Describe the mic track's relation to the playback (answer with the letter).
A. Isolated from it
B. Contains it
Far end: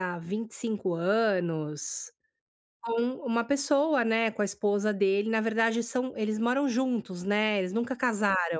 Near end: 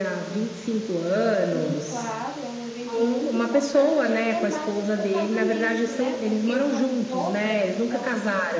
B